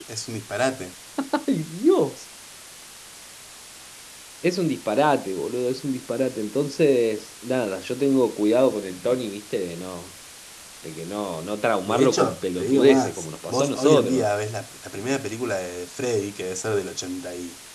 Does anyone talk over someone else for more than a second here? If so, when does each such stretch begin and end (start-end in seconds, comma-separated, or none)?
11.9-14.2